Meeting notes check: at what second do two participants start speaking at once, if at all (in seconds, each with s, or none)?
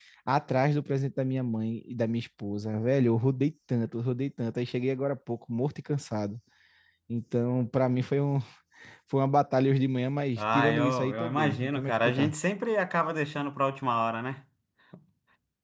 10.4 s